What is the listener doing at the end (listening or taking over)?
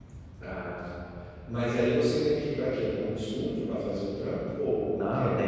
taking over